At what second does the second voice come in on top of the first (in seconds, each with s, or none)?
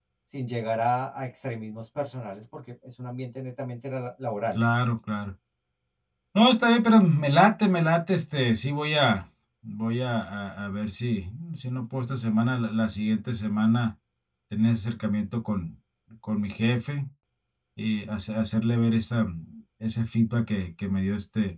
none